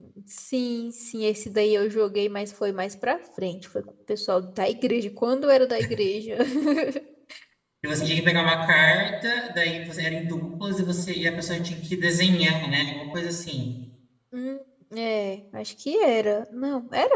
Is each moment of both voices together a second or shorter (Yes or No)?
Yes